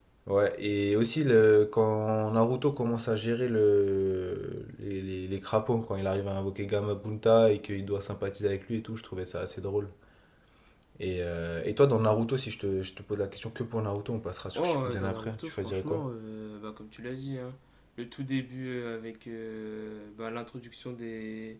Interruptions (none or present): present